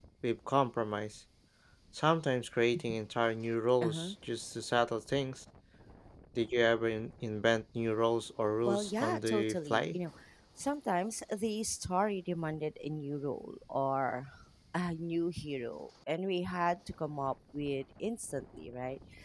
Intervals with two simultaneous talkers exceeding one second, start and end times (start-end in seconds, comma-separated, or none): 8.7-10.0